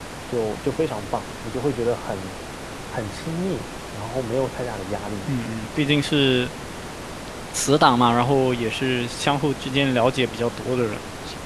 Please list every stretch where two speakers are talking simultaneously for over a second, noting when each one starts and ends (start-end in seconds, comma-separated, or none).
none